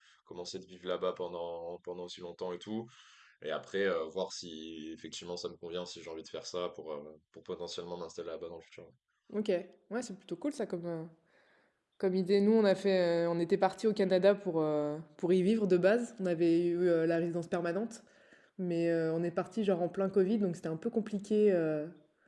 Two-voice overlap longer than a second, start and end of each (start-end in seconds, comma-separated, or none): none